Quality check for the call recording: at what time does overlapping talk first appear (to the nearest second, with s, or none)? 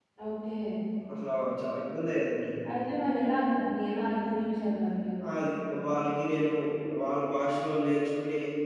none